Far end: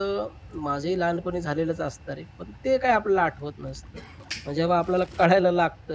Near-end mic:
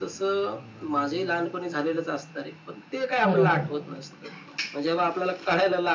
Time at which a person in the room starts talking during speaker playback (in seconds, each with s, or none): 3.2 s